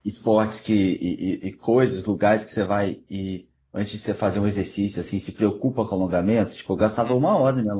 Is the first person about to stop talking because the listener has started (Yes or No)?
Yes